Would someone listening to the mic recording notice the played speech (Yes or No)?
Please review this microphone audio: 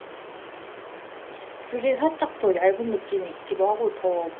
No